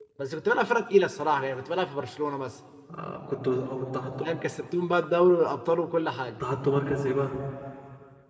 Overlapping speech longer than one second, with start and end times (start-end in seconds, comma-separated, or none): none